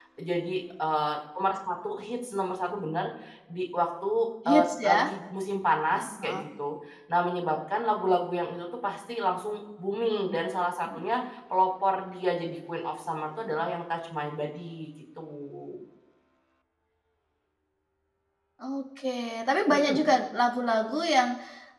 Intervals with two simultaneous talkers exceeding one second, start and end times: none

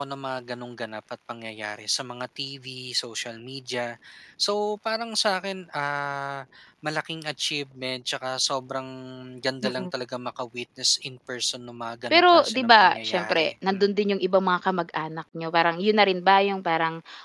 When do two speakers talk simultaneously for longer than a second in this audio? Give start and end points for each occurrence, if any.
12.1-13.8

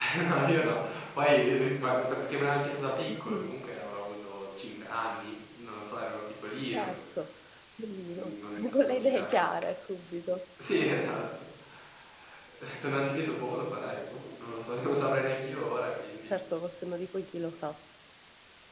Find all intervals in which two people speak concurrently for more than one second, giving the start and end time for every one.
8.2-9.6

